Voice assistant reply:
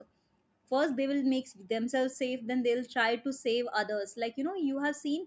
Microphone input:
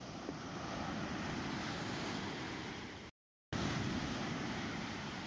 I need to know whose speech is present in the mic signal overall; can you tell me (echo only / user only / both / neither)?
neither